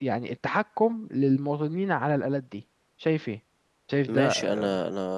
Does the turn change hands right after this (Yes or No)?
Yes